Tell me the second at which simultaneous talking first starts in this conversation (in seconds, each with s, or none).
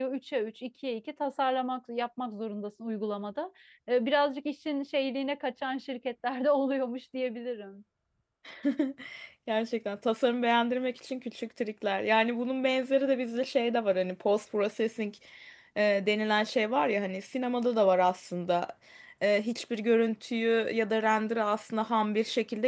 none